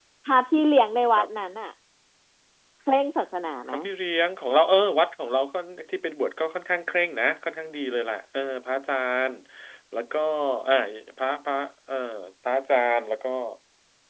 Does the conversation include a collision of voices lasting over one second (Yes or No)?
No